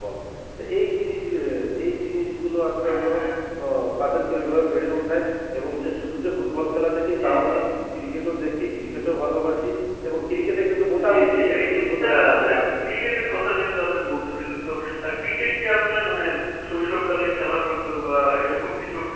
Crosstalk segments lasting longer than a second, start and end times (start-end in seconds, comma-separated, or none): 11.0-12.8